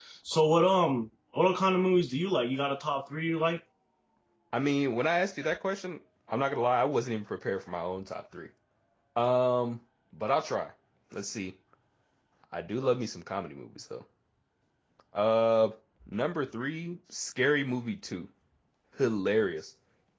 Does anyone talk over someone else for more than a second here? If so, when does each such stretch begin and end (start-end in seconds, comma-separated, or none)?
none